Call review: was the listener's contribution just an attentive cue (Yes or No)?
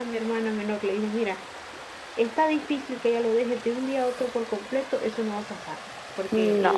Yes